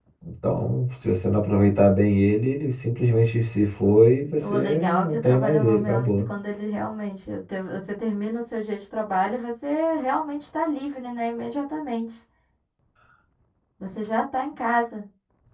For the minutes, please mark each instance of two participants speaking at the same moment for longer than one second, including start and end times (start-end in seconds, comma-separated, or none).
4.4-6.3